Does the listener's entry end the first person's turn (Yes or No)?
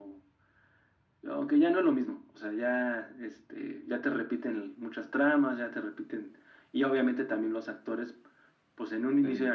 No